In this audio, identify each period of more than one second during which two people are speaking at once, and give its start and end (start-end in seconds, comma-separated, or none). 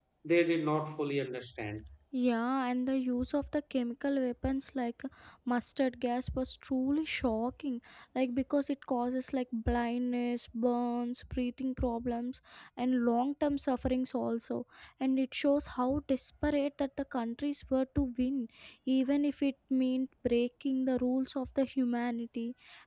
none